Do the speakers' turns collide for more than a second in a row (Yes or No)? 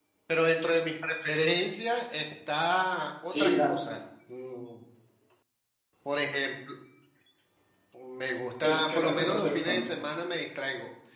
Yes